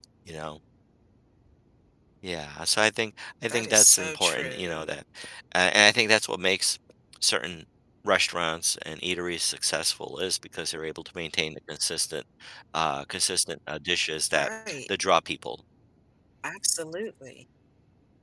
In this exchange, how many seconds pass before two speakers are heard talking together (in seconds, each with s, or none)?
3.5 s